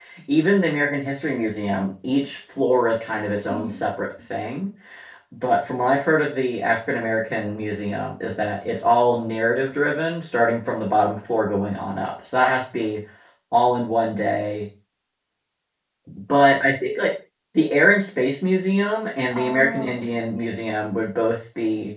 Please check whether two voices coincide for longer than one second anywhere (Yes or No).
Yes